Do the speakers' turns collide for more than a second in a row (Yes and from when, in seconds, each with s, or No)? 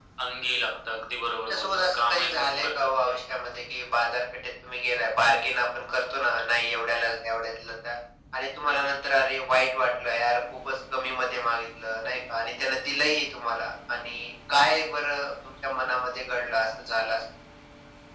Yes, from 1.5 s